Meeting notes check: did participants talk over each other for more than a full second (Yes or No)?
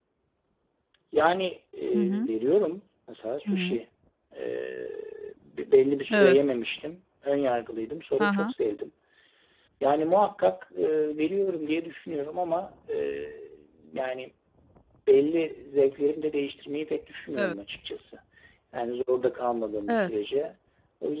No